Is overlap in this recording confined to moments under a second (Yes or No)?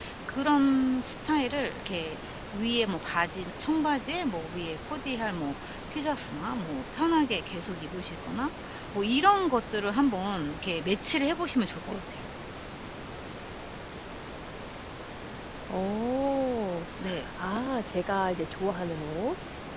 Yes